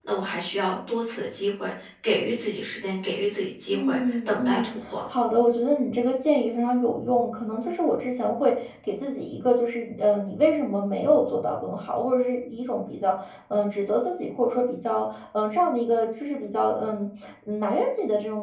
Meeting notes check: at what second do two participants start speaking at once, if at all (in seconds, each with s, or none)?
3.7 s